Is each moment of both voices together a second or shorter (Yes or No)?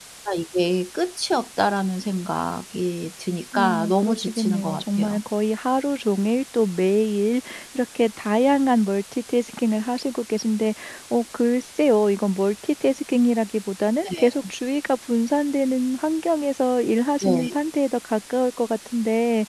No